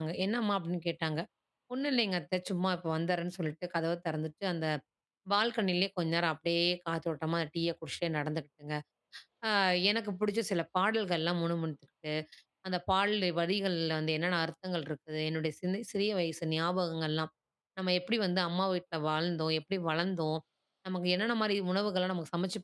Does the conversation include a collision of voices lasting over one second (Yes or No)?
No